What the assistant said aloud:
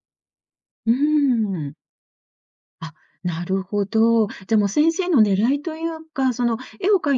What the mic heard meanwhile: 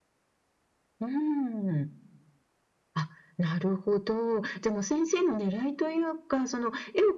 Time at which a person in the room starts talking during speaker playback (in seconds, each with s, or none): none